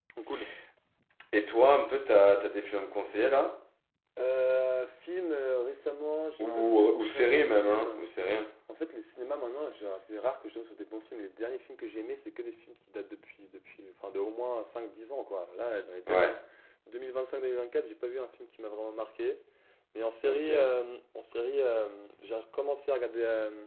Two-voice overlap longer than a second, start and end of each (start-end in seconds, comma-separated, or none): 6.4-8.0